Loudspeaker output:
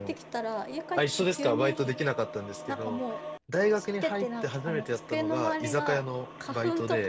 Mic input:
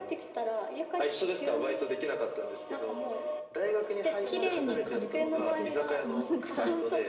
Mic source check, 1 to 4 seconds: echo only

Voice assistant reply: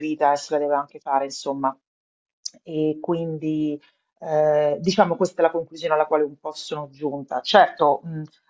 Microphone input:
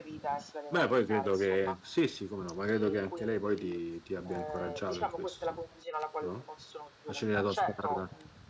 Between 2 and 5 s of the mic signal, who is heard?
both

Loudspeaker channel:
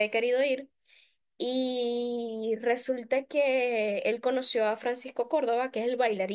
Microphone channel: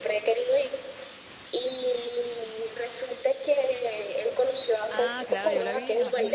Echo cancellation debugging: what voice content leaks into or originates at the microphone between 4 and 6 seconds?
both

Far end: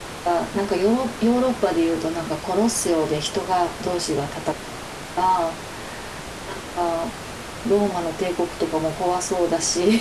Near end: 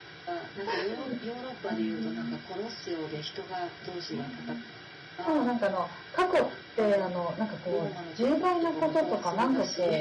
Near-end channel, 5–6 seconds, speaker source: both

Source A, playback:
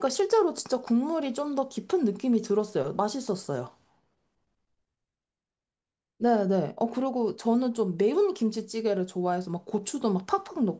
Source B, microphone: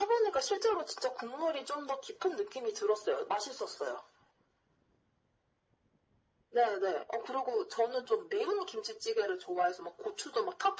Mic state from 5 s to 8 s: echo only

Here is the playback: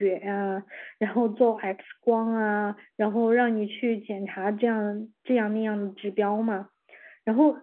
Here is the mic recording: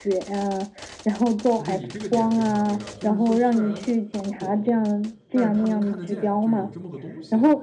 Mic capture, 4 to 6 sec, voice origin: both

